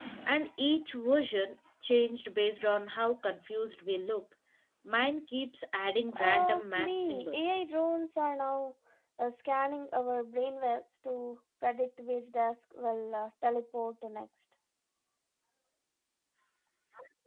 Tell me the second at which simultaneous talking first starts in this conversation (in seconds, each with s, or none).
6.2 s